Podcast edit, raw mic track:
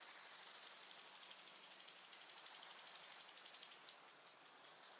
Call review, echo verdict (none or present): none